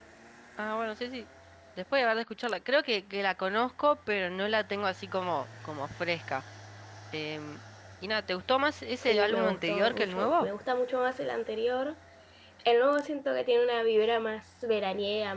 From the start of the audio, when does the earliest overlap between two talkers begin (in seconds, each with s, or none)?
9.0 s